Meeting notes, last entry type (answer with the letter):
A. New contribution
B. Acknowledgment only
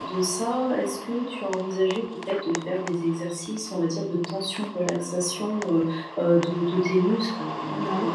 B